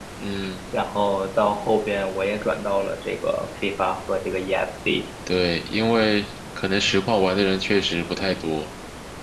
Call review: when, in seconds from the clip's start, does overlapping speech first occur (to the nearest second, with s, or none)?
none